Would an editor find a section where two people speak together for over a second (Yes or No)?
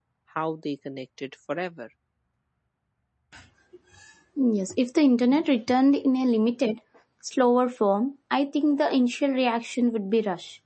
No